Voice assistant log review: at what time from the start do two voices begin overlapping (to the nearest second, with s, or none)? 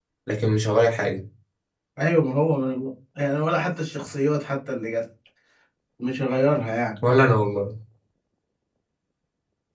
none